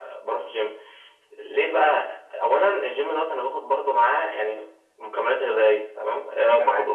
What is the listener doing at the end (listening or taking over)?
listening